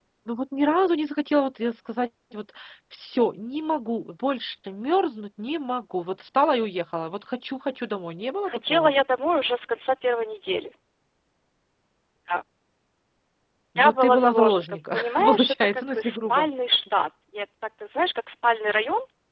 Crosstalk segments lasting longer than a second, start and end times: 13.8-16.4

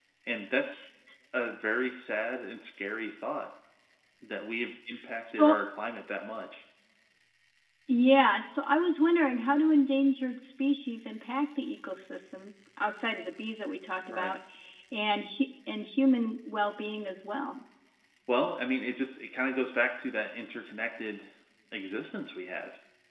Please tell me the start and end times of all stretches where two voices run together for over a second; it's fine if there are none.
none

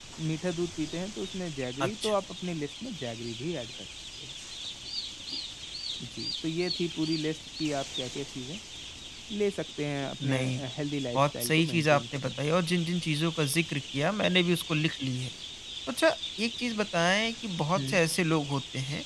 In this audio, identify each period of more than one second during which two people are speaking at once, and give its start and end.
11.1-12.7

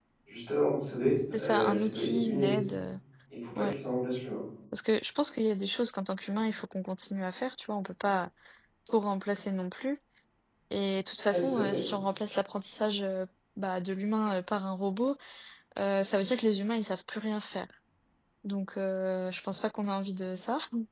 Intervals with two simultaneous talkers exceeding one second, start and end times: 1.3-2.5

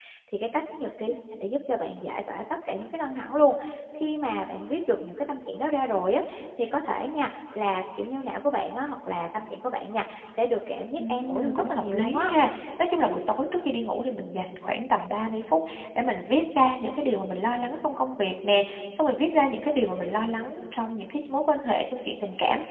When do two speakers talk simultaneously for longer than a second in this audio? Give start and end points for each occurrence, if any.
11.0-12.3

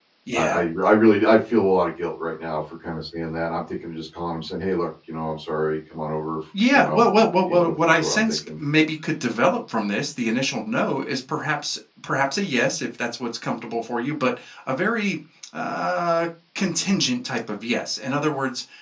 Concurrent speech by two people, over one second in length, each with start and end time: 6.7-8.3

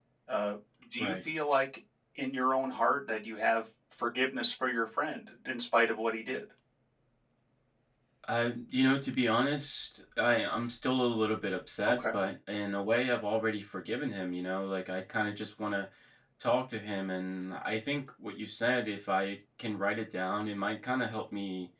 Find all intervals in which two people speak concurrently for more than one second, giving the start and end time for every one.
none

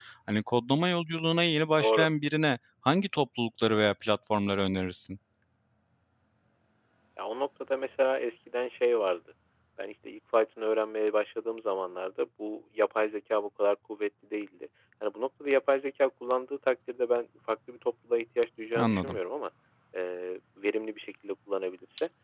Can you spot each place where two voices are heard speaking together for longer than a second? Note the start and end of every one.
none

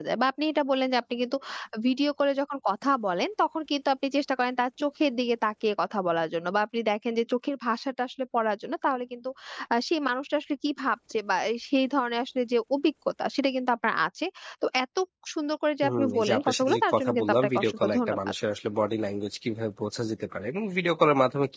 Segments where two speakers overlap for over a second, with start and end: 15.8-18.2

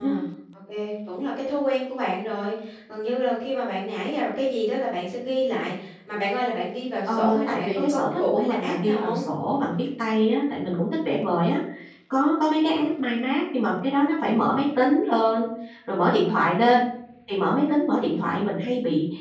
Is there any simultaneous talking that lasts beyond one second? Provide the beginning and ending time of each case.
7.1-9.2

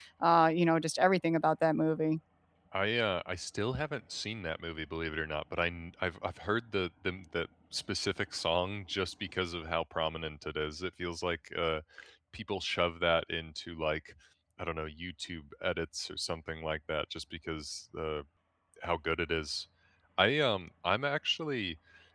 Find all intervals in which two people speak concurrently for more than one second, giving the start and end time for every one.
none

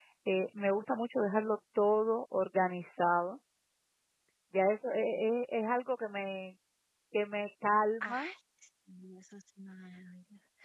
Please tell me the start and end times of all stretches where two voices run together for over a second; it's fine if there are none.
none

